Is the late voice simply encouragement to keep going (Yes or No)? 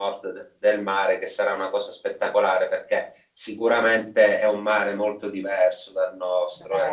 Yes